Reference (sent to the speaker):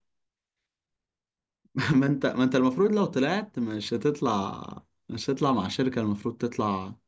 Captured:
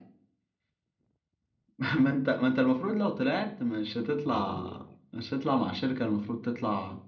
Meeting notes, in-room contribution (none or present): present